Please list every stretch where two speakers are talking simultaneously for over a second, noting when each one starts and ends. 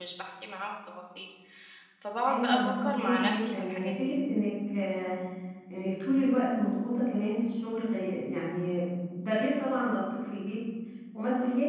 2.2-4.2

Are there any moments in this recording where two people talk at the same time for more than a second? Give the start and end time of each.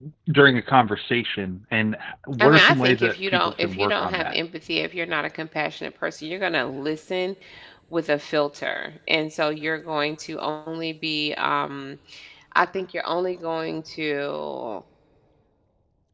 2.4-4.4

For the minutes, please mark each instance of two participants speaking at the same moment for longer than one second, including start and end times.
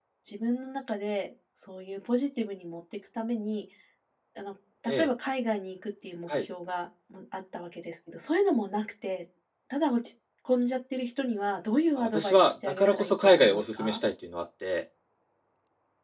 12.0-14.0

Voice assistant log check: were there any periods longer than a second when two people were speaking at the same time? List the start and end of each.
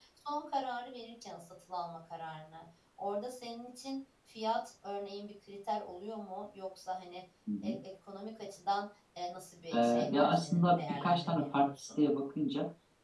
9.7-11.9

